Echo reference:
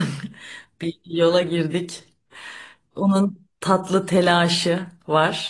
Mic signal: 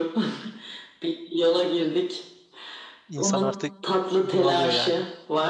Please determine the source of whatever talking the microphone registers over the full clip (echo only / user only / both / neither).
both